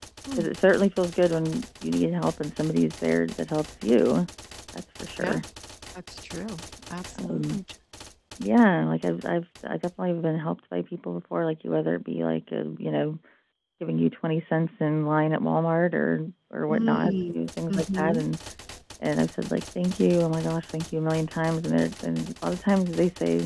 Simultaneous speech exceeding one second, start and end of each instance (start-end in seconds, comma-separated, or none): 16.7-18.2